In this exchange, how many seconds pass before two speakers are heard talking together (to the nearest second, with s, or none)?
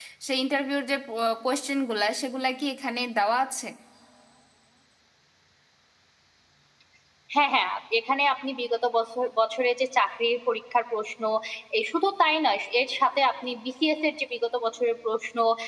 none